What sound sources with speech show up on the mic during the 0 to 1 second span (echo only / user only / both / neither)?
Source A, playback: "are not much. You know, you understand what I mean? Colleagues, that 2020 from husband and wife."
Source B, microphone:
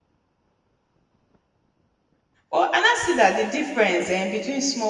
neither